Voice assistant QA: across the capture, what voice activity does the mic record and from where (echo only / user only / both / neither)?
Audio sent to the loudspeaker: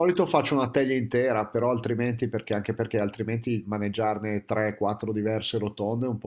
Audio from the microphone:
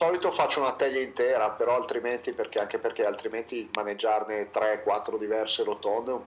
echo only